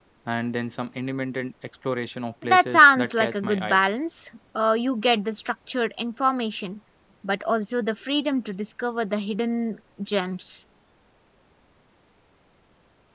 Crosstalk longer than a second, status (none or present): present